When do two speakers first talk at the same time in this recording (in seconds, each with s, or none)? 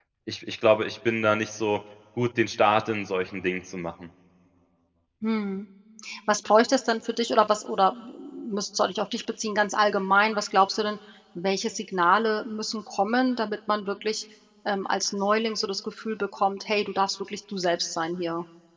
none